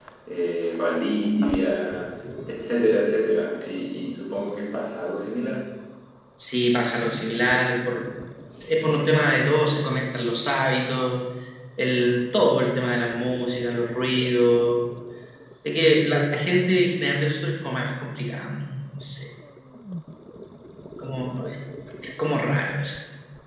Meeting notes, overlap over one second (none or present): none